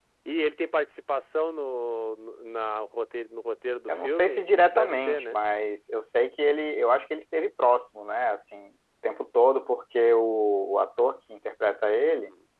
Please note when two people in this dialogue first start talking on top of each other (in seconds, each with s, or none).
3.9 s